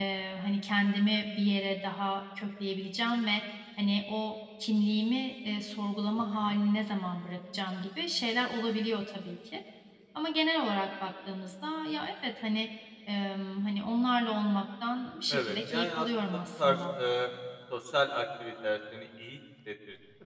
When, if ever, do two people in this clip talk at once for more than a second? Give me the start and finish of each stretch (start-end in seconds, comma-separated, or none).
15.3-16.8